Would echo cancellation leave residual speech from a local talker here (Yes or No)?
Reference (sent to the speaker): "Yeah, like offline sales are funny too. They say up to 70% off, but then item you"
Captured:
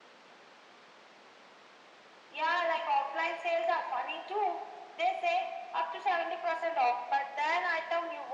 No